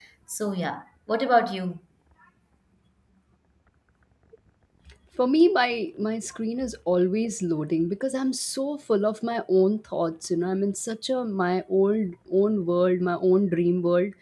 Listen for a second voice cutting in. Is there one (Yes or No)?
No